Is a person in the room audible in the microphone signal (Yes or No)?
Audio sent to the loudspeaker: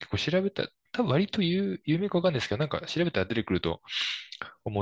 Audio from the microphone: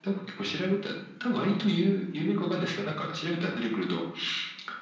No